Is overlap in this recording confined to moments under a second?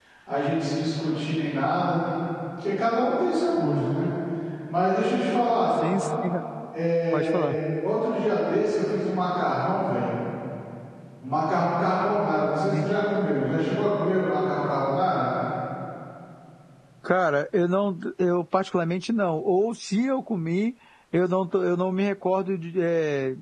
Yes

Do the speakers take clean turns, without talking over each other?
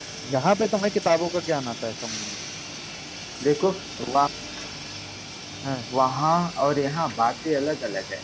Yes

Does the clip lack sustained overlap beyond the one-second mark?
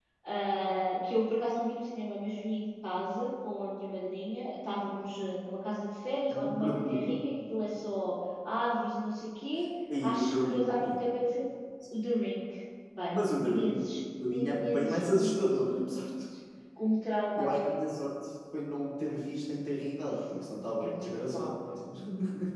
No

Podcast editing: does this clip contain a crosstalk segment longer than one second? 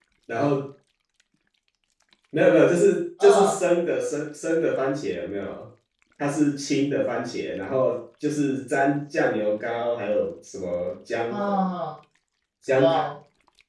No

